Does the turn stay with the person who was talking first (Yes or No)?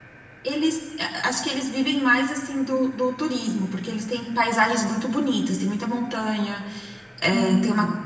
Yes